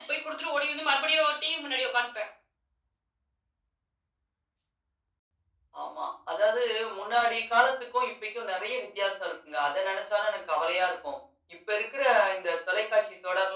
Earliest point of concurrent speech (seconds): none

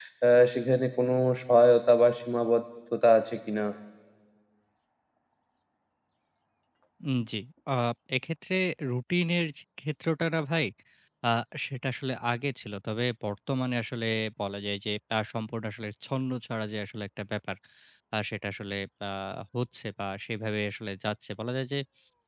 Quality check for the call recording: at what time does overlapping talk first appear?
none

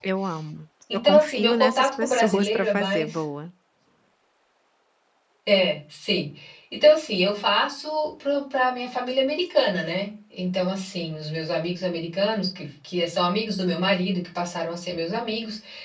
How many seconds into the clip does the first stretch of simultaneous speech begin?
0.9 s

